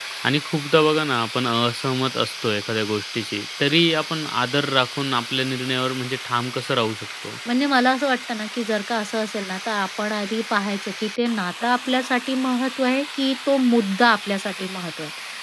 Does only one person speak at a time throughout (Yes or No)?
Yes